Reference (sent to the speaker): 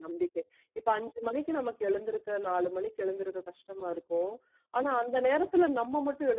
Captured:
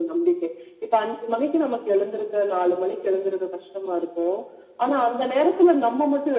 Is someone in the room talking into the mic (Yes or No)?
No